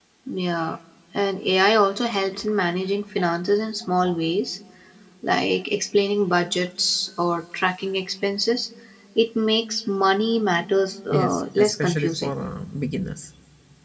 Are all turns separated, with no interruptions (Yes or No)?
No